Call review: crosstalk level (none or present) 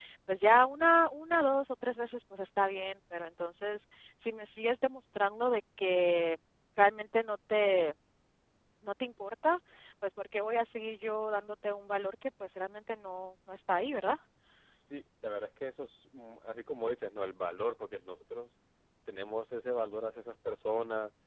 none